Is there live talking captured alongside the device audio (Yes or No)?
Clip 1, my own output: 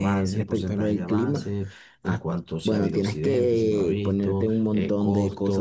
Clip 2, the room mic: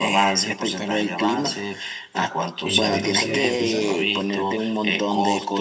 Yes